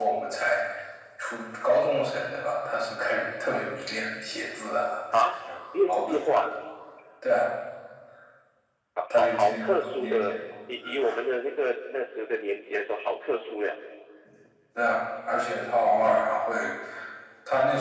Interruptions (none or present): present